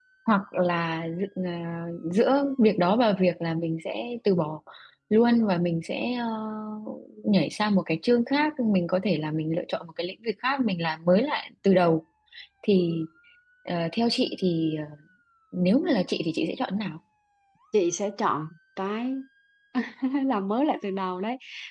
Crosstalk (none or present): none